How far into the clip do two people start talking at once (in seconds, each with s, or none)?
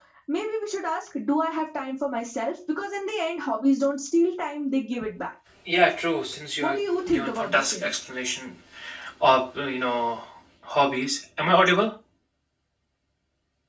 6.6 s